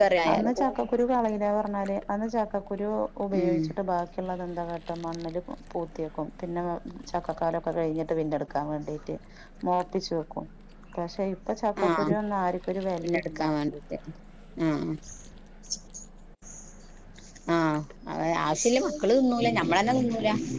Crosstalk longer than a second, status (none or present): none